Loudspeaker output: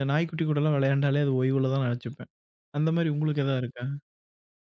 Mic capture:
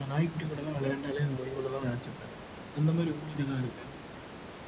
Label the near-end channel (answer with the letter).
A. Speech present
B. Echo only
B